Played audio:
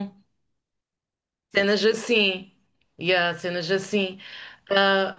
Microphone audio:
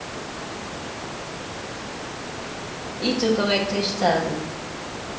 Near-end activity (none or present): present